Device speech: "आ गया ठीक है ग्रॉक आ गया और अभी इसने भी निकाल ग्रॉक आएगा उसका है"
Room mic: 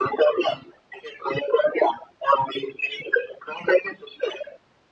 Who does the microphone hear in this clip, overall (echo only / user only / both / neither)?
echo only